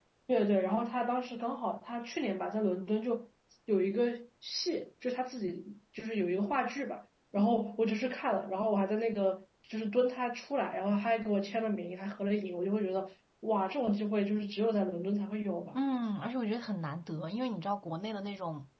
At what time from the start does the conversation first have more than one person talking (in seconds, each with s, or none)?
none